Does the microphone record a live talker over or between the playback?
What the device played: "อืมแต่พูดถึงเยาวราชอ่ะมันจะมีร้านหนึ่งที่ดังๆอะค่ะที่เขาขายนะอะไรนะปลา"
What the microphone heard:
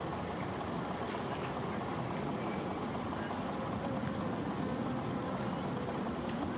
No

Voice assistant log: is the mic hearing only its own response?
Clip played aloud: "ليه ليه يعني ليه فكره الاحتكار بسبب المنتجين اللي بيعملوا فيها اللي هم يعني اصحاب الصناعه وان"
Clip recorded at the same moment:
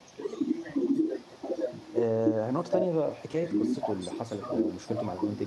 No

